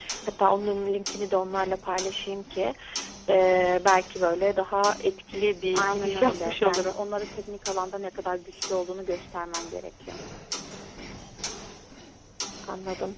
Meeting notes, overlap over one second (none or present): present